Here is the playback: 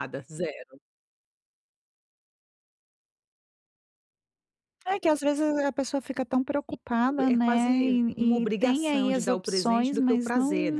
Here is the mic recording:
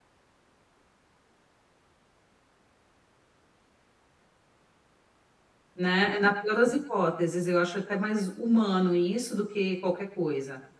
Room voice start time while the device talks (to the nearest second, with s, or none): 6 s